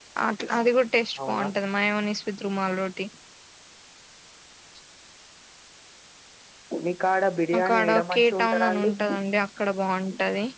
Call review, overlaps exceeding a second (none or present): present